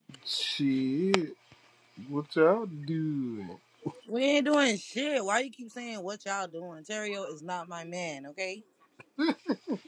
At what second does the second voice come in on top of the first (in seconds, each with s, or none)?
none